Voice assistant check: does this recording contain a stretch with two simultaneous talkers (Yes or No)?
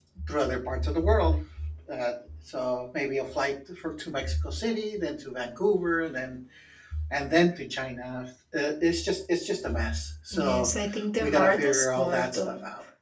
Yes